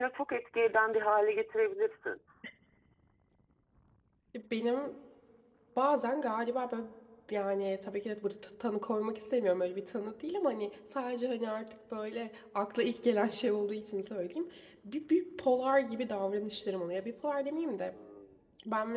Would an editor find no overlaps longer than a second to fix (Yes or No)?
Yes